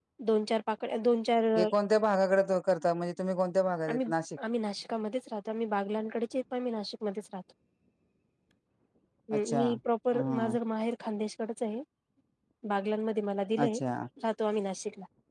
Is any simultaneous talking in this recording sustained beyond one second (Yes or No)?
No